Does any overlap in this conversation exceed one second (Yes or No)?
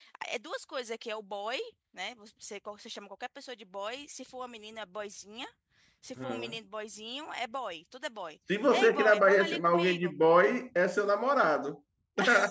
Yes